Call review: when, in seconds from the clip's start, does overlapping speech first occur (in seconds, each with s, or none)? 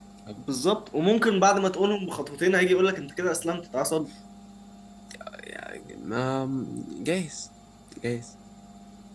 none